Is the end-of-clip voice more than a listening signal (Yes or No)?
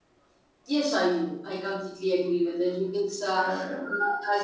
No